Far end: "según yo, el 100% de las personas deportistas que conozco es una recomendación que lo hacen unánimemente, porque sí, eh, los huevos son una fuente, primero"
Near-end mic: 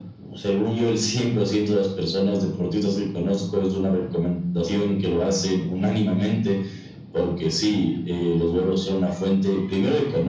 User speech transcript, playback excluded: none

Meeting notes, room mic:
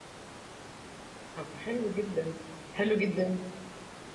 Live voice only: طب حلو جدا حلو جدا

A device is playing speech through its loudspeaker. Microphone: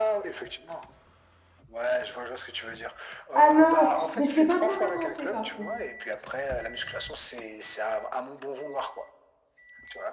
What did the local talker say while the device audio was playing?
Ah non, mais je l'ai pas encore inventé par contre.

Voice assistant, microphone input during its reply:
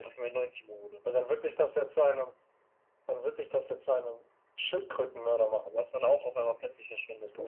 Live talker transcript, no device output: none

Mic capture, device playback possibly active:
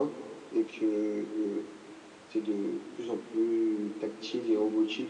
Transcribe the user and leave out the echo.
none

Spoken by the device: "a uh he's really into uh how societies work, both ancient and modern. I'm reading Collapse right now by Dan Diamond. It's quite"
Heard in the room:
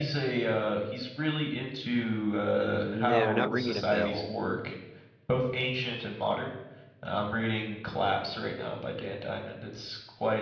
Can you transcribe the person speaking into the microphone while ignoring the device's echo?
No, not ringing a bell.

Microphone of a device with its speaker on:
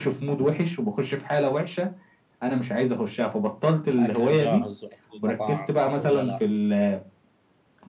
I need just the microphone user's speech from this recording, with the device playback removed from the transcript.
الأكل الجاهز وأكل المطاعم صح ولا لا؟

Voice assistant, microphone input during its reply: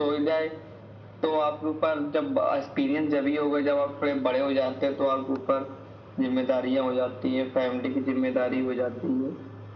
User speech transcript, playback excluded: none

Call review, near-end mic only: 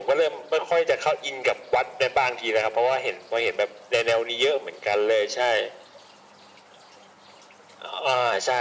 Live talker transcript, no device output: none

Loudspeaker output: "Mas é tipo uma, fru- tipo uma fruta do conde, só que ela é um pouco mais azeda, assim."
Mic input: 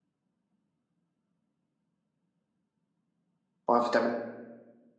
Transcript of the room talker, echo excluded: Uma vitamina.

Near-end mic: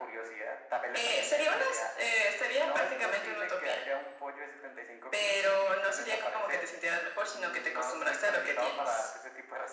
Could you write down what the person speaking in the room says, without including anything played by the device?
none

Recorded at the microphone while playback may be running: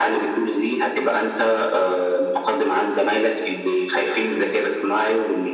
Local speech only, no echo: none

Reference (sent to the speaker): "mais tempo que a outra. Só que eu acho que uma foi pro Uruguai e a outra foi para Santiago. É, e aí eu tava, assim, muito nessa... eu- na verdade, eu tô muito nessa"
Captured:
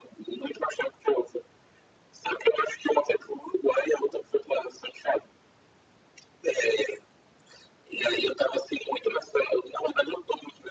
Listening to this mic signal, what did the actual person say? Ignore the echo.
none

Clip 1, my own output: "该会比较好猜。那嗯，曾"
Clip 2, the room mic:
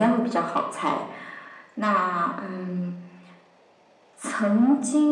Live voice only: none

